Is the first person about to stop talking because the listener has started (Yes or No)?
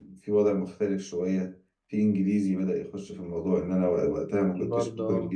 No